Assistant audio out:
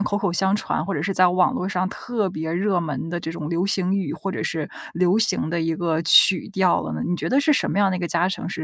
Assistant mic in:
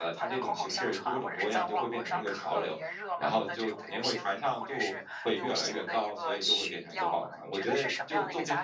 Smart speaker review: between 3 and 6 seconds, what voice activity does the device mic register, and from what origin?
both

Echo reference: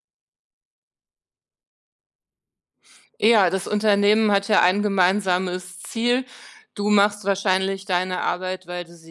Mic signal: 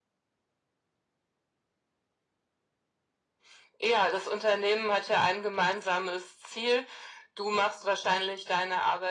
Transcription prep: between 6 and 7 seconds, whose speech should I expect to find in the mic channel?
echo only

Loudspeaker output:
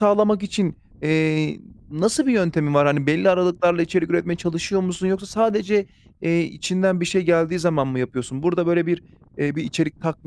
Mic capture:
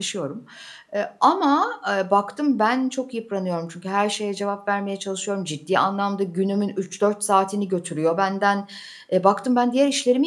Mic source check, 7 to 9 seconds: user only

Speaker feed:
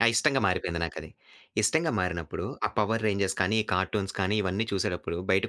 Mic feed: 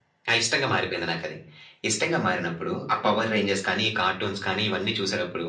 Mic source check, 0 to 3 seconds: echo only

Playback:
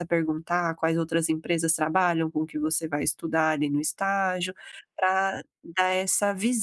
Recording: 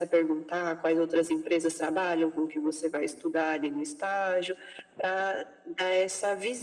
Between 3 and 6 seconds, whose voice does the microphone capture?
echo only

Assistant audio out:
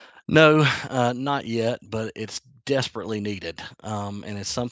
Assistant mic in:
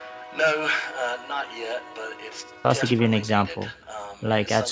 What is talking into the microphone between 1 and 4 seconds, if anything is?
both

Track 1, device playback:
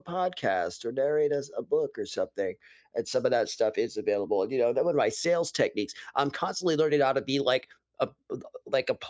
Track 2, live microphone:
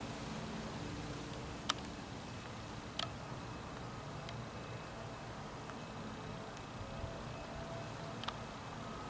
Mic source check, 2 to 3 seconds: neither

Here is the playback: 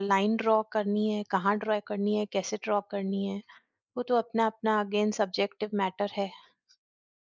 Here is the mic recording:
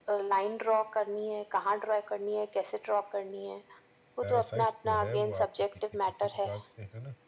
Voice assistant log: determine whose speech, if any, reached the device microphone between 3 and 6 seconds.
both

